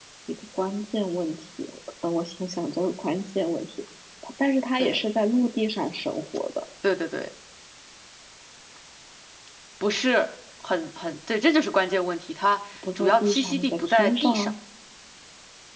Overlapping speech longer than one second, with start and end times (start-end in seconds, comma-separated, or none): 13.0-14.5